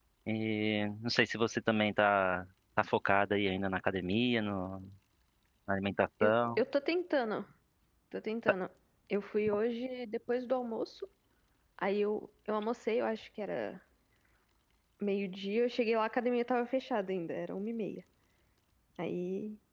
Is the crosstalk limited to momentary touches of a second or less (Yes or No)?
Yes